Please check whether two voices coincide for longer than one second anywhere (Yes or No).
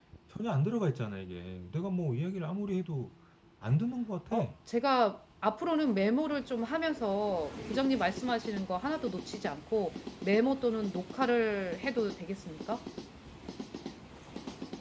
No